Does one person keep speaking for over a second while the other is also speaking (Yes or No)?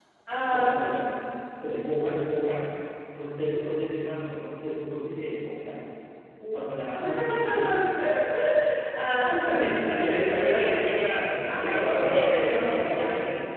Yes